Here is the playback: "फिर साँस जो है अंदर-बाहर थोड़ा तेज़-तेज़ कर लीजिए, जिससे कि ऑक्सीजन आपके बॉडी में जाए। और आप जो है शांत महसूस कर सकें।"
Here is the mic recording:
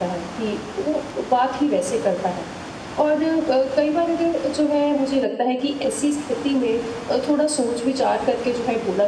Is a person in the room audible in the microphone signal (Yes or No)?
Yes